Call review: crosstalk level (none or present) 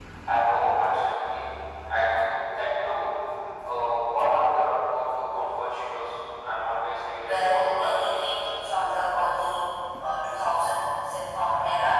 present